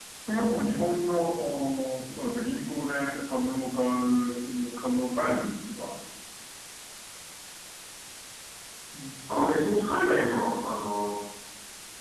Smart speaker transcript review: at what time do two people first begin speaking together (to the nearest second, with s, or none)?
none